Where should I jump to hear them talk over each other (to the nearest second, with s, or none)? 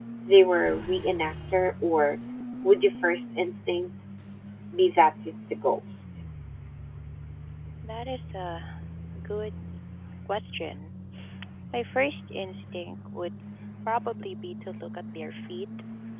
none